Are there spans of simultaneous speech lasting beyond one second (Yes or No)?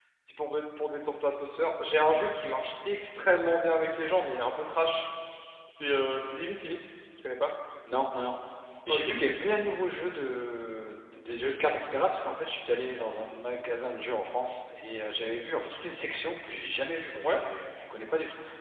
No